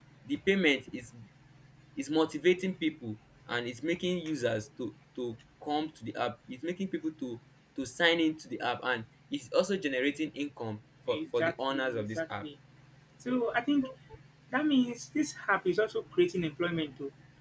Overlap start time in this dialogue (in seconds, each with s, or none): 11.1 s